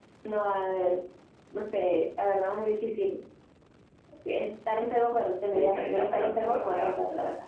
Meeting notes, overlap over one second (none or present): present